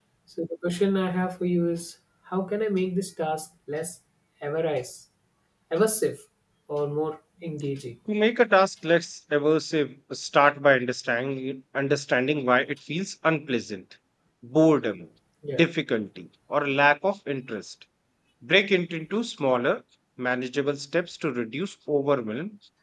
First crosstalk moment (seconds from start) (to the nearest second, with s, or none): none